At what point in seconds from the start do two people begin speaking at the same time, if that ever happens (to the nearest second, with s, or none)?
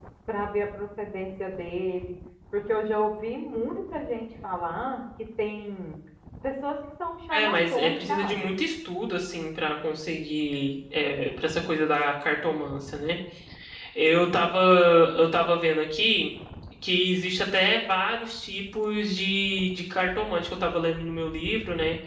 7 s